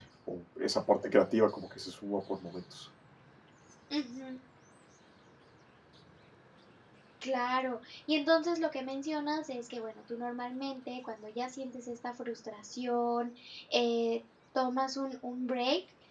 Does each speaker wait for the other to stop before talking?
Yes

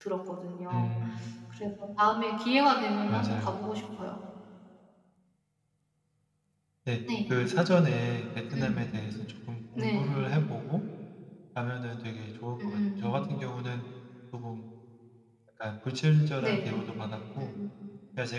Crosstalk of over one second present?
No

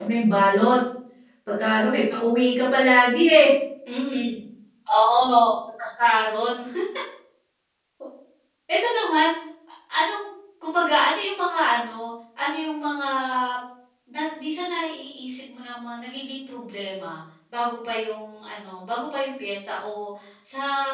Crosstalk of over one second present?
No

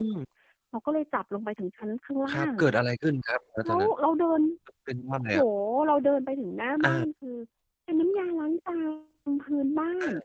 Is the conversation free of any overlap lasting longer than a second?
Yes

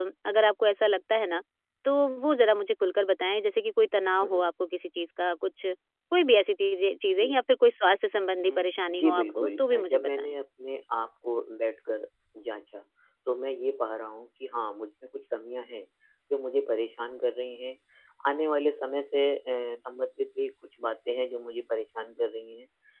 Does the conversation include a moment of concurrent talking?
Yes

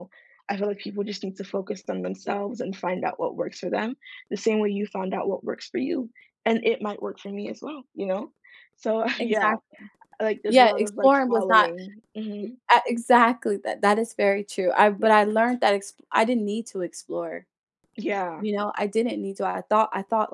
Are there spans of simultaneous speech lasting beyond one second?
Yes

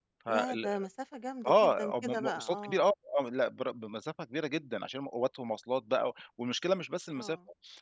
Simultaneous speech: Yes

